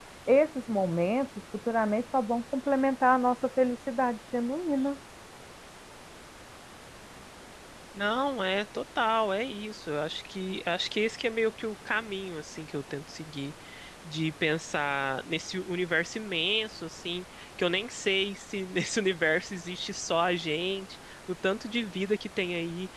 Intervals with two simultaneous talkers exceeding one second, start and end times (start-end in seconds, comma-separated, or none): none